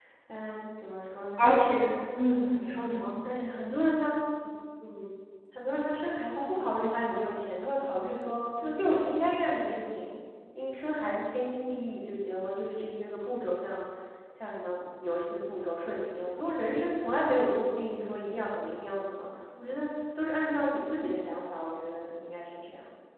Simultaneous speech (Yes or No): No